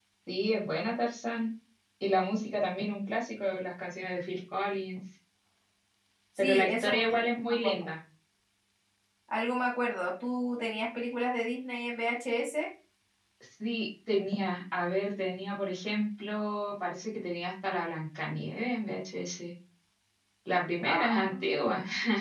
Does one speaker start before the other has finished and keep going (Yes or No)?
Yes